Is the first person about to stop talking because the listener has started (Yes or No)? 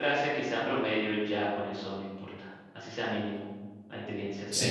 Yes